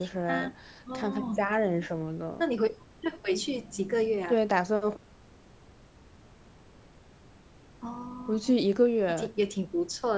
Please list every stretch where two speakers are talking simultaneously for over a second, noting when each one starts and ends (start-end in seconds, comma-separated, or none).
none